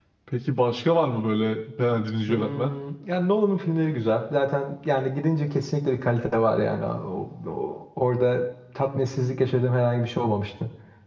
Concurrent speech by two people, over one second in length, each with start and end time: none

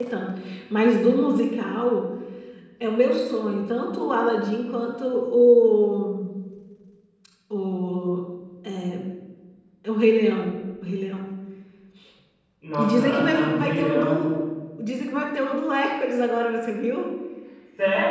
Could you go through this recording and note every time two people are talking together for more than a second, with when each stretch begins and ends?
12.8-14.2

